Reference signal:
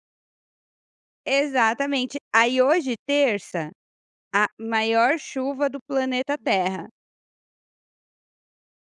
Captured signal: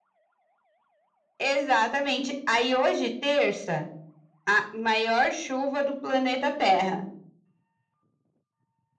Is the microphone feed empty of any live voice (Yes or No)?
Yes